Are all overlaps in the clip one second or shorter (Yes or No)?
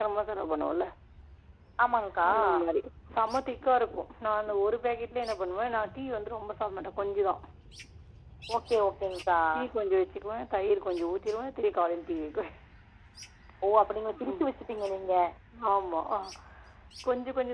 Yes